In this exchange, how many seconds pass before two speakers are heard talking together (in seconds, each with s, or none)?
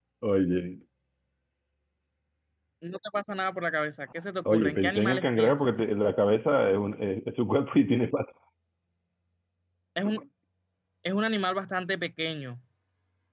4.4 s